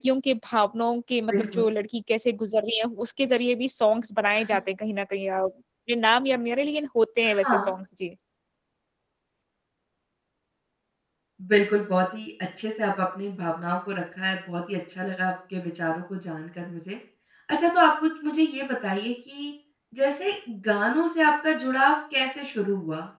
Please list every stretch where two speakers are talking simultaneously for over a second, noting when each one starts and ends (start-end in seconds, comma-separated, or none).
none